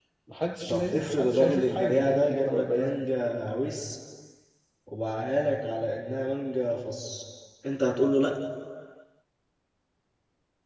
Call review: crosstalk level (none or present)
present